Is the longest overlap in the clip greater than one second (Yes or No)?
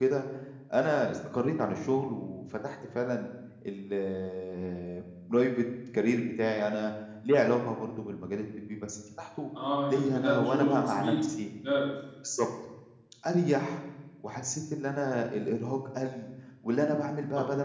Yes